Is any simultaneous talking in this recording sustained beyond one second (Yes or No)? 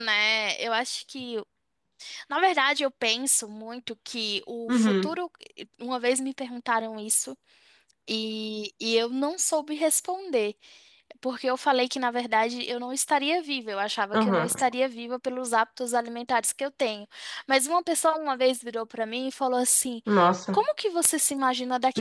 No